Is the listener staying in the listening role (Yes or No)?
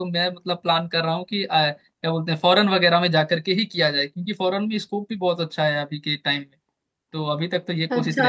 No